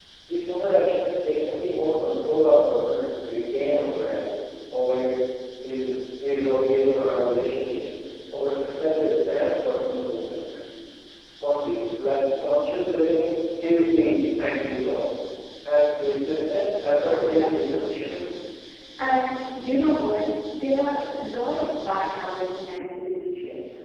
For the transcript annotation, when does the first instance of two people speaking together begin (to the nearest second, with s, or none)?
17 s